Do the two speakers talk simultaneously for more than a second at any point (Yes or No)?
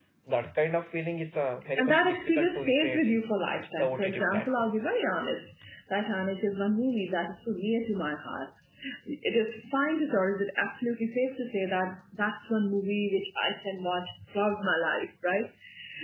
Yes